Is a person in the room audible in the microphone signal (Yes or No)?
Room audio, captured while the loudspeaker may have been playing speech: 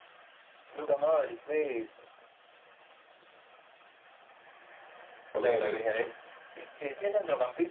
Yes